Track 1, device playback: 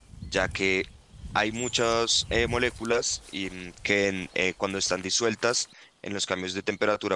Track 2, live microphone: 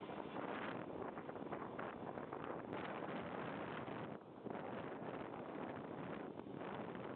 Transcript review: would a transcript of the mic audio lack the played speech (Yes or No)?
Yes